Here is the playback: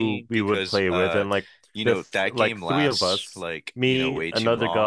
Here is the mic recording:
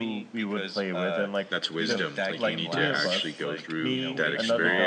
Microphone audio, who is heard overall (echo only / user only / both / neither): both